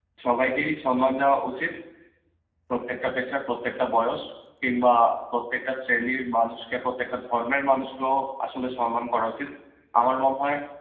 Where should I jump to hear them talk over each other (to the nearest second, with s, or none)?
none